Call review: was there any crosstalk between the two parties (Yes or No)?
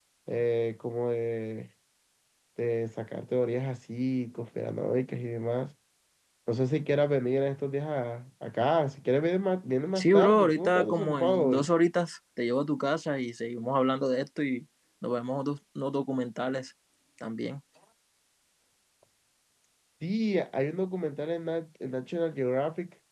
Yes